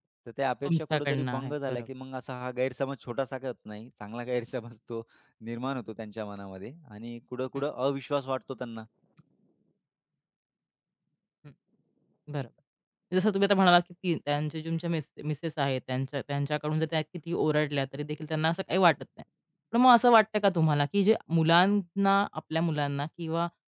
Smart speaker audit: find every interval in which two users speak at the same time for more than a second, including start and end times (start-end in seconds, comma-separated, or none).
0.7-1.9